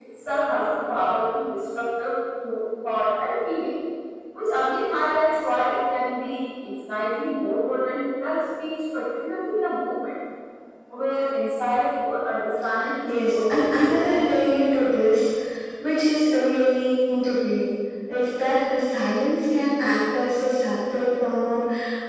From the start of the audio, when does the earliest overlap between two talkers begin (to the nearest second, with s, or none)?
13 s